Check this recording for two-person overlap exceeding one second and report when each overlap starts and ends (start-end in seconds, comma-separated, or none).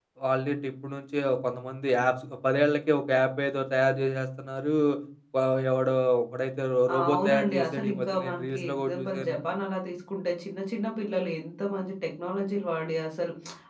6.9-9.4